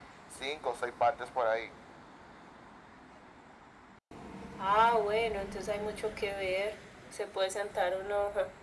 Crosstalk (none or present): none